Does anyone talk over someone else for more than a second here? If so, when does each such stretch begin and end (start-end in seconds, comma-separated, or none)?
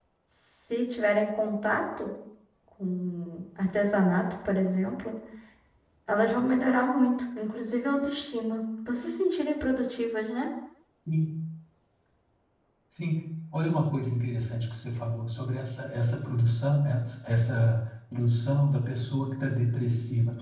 none